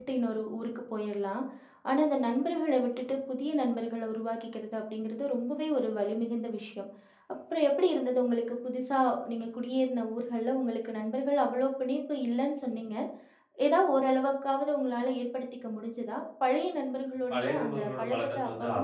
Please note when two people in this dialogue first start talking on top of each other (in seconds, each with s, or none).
17.3 s